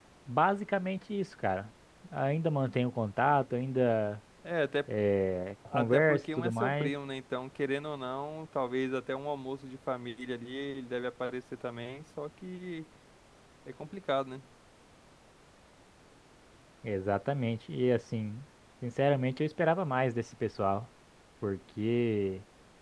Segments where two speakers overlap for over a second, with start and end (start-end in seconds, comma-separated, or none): 5.7-6.9